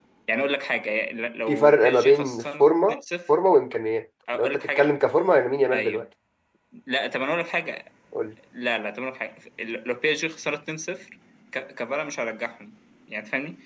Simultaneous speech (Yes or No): Yes